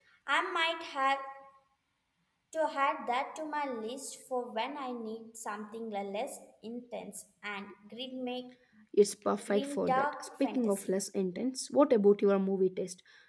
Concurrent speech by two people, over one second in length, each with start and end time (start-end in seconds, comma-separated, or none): 9.4-10.9